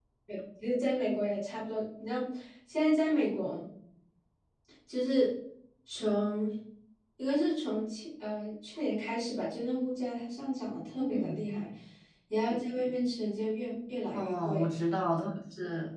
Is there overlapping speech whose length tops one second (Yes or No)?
No